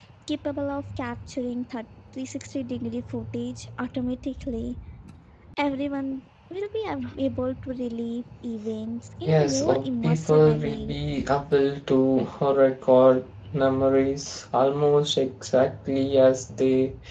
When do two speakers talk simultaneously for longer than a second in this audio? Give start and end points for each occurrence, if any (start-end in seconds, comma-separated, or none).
9.2-11.0